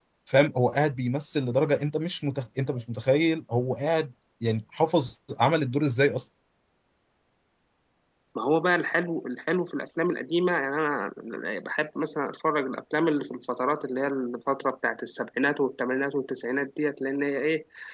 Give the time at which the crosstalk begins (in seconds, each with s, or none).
none